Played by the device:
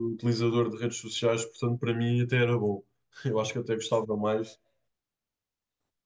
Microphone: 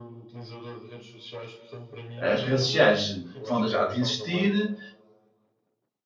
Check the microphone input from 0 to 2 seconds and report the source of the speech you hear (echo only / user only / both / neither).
echo only